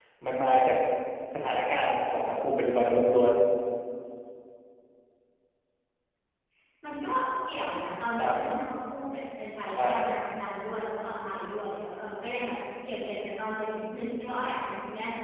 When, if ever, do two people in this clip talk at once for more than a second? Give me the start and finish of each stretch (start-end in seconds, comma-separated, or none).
none